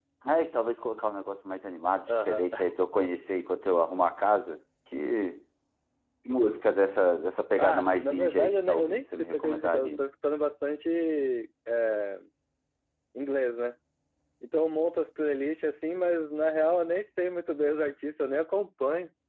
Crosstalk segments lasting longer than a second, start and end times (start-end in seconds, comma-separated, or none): 7.6-10.0